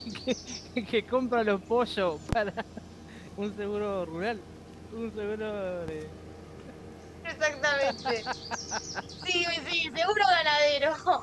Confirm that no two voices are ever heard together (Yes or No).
Yes